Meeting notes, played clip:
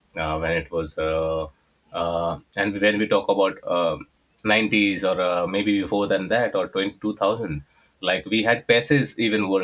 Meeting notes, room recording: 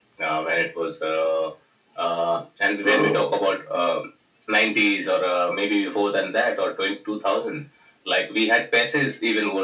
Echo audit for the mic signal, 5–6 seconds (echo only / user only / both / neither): echo only